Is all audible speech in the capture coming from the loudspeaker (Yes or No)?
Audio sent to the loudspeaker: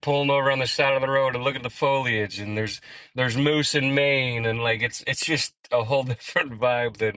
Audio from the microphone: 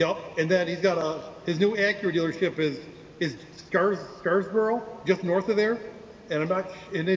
No